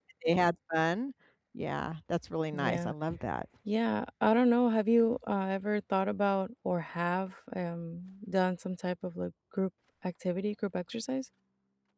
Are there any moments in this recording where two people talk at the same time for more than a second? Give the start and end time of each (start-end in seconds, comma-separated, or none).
none